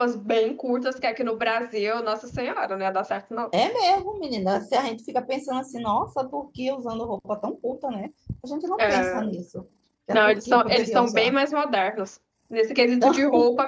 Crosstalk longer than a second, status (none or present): present